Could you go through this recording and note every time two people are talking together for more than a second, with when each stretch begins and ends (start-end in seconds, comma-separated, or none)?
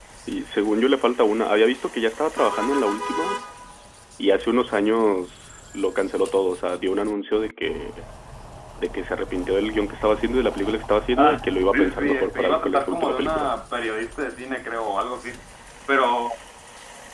11.2-13.5